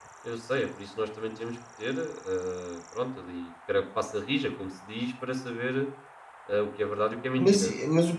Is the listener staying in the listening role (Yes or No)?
No